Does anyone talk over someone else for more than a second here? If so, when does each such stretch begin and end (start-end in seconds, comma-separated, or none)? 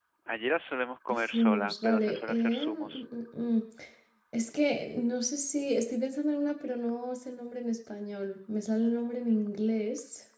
1.1-2.9